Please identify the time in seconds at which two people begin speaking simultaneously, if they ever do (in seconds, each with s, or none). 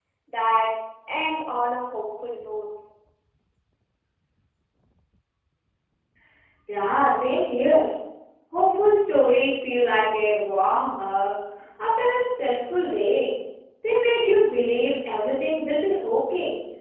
none